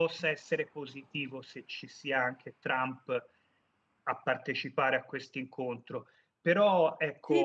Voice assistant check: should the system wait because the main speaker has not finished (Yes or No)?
No